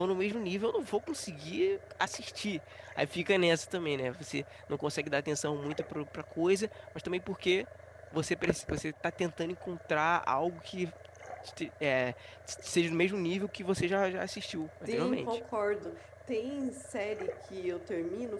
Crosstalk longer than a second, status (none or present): none